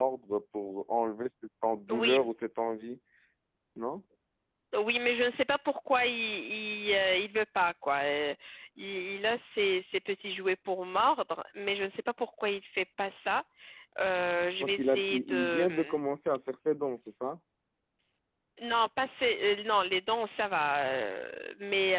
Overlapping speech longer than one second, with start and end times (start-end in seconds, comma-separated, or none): 14.6-15.9